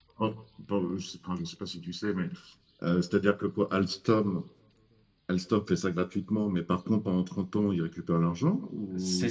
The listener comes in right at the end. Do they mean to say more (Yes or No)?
Yes